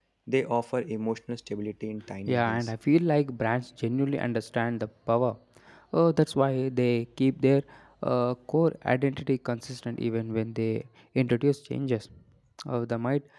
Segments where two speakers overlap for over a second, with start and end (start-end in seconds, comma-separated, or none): none